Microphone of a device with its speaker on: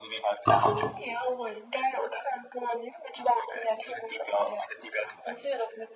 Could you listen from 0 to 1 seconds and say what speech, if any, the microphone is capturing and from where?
both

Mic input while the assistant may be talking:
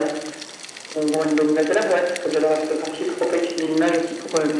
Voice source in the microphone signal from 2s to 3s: echo only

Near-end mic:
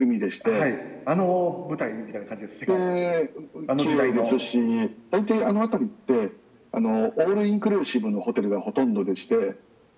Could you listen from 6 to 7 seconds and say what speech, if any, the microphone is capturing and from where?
echo only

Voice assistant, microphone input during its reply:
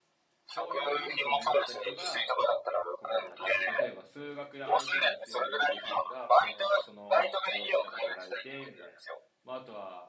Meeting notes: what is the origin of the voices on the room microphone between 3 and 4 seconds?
both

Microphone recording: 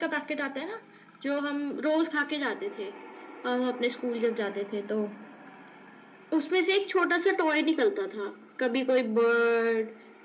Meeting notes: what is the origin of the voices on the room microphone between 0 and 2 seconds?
echo only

